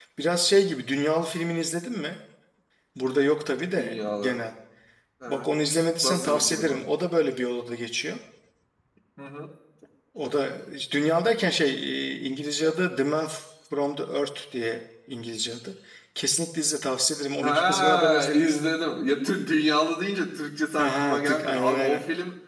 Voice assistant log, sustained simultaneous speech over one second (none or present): present